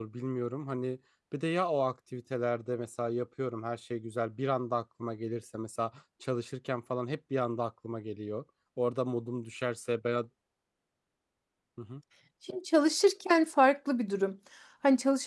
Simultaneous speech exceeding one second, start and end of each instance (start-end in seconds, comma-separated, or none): none